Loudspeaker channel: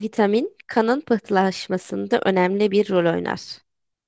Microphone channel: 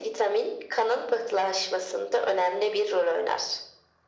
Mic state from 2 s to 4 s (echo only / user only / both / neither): echo only